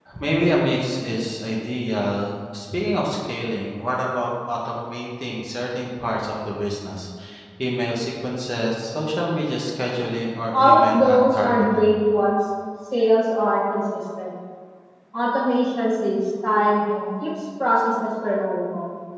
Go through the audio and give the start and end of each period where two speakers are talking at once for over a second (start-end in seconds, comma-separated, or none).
10.5-11.9